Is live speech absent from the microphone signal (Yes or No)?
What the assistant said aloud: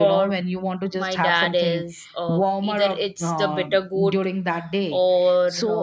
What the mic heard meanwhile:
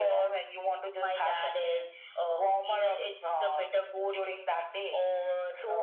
Yes